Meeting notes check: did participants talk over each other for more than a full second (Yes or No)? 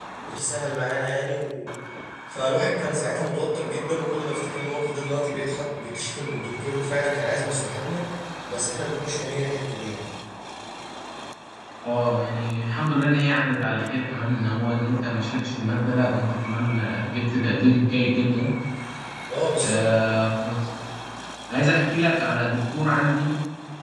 No